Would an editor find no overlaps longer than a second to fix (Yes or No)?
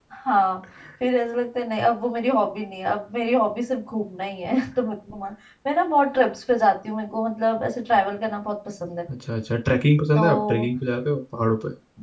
Yes